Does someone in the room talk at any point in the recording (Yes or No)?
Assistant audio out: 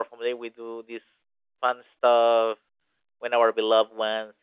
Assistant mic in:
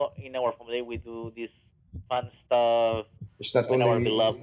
Yes